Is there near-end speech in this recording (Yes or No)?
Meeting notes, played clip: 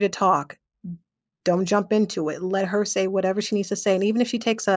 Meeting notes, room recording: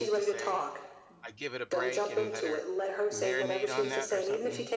Yes